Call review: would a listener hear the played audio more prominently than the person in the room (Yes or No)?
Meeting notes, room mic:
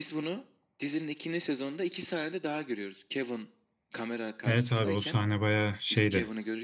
No